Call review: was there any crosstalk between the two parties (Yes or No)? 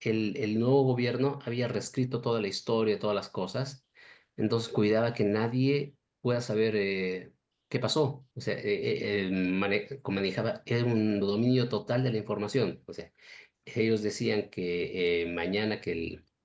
No